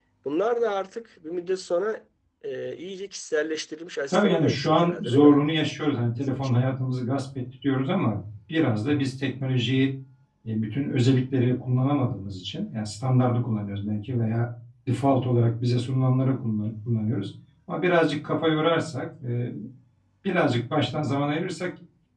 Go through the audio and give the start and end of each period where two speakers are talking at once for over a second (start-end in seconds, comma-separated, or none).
4.1-5.4